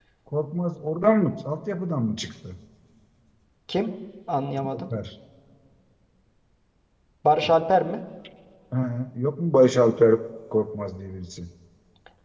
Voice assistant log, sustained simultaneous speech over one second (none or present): none